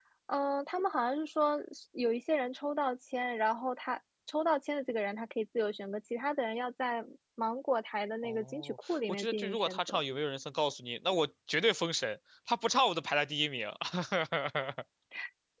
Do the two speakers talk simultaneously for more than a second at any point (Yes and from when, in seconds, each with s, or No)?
Yes, from 8.2 s